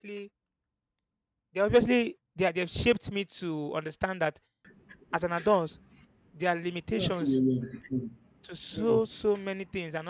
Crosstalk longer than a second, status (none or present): none